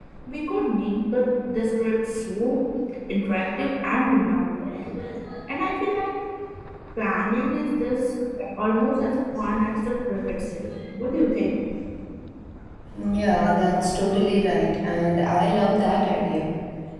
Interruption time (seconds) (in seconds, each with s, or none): none